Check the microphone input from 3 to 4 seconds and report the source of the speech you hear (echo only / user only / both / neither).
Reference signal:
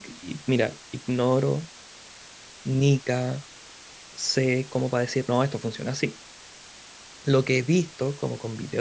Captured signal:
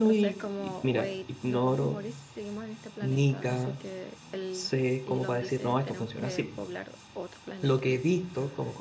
both